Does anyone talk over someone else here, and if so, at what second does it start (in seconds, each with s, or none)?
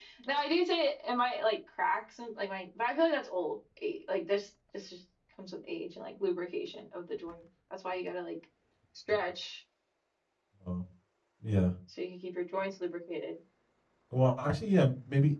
none